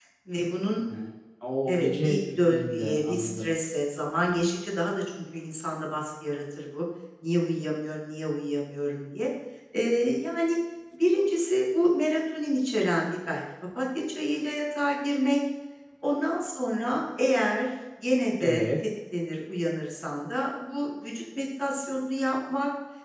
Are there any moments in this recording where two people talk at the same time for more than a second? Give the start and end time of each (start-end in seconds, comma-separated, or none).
1.7-3.5